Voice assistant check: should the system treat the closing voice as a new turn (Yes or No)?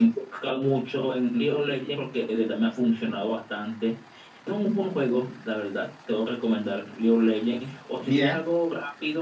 No